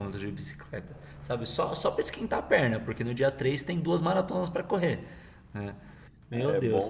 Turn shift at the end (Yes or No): Yes